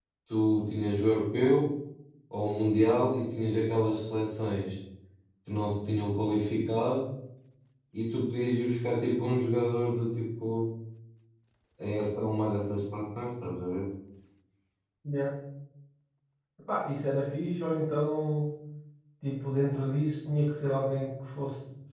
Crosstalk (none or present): none